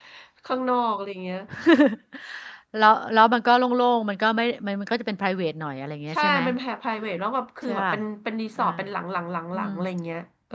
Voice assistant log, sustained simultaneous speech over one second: none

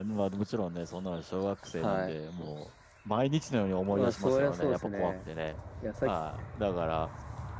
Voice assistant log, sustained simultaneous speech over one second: present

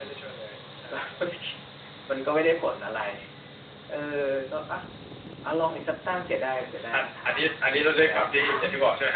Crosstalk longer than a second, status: present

